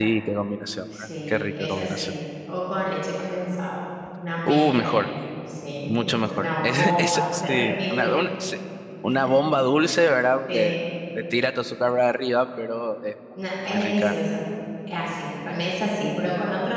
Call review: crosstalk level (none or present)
present